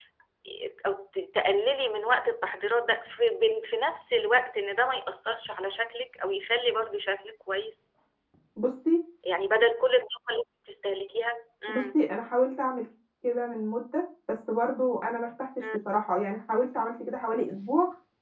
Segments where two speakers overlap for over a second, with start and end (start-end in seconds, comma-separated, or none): none